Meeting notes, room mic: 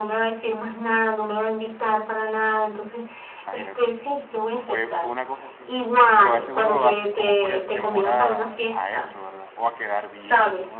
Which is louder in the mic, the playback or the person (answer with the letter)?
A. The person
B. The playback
B